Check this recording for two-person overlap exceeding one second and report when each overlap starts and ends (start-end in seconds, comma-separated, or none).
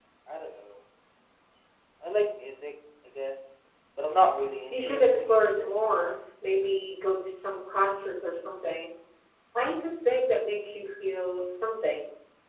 4.7-6.2